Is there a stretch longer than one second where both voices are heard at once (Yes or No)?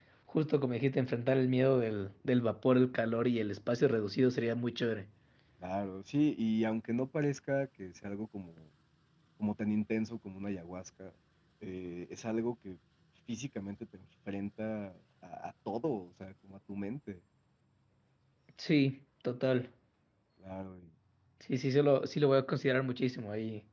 No